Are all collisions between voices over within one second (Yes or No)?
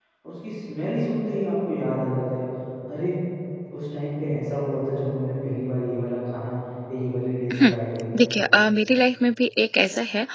Yes